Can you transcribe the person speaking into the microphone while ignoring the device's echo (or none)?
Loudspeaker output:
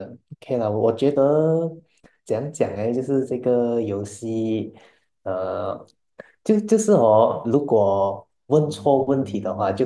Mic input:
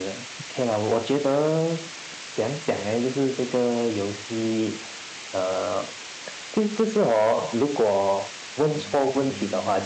none